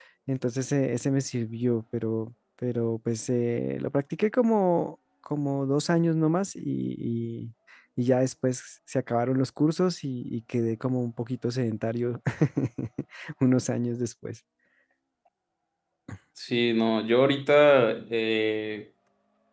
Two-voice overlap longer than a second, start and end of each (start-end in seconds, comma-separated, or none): none